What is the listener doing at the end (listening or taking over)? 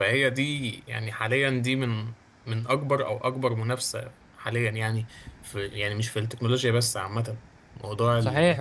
taking over